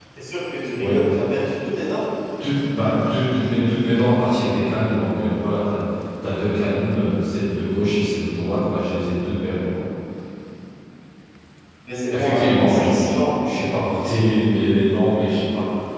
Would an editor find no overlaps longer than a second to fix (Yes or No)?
No